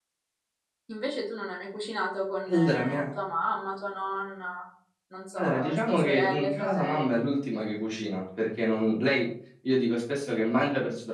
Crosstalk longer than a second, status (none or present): present